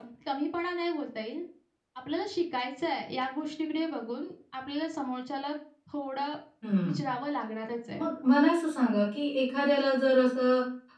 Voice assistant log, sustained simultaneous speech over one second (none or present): none